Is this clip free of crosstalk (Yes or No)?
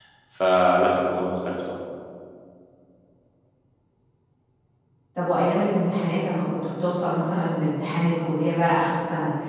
Yes